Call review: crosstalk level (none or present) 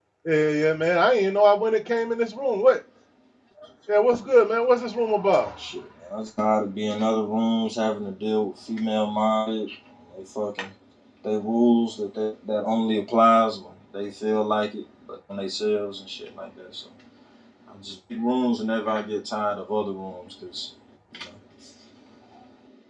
none